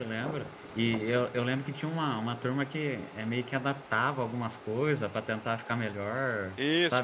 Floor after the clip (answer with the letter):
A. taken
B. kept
A